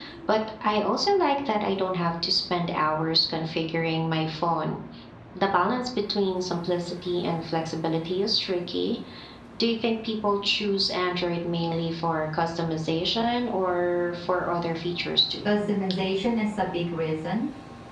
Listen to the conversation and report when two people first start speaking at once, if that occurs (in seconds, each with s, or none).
none